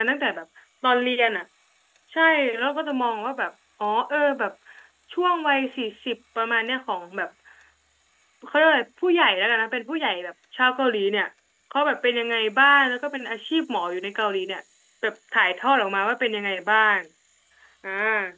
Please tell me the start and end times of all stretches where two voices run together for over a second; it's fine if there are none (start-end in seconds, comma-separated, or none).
none